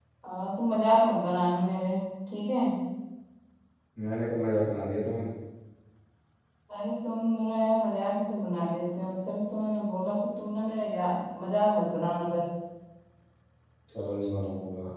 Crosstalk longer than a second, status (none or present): none